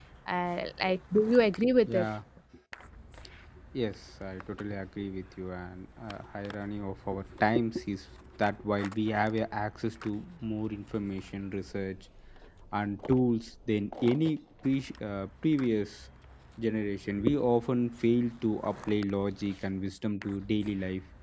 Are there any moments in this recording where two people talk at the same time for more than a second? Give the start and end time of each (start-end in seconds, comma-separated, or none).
none